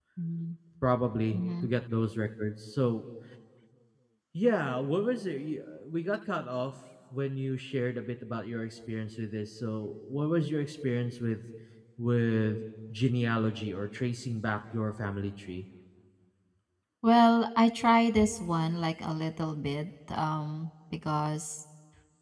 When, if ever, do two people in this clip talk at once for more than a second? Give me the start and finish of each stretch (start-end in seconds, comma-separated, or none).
none